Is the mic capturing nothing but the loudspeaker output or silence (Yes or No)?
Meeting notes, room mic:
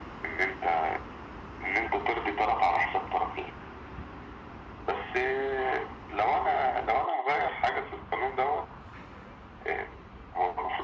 Yes